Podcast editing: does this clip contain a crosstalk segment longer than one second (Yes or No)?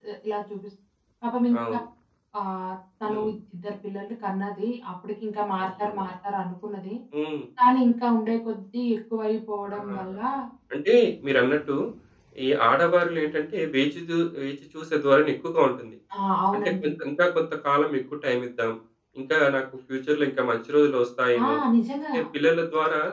No